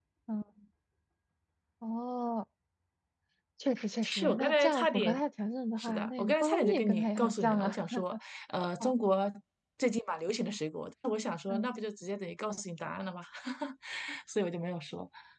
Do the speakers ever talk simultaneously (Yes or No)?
Yes